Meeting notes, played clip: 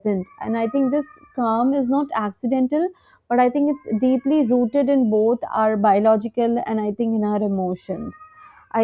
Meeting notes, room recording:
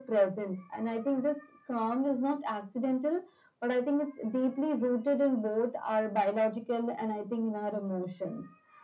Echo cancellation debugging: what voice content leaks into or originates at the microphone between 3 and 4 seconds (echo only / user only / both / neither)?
echo only